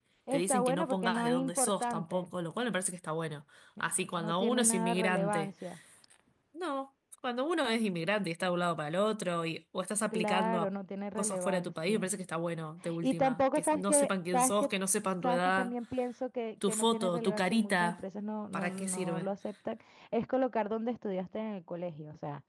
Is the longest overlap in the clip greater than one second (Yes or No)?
Yes